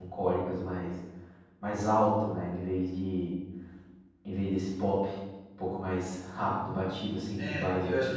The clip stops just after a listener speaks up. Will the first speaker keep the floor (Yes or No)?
No